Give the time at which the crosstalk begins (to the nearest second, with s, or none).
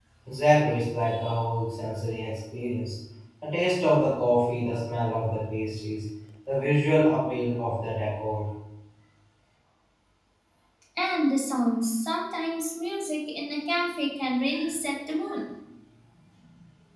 none